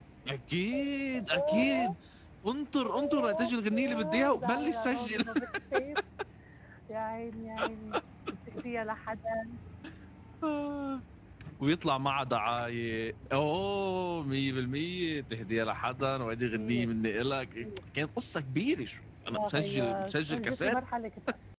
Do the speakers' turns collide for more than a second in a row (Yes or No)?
Yes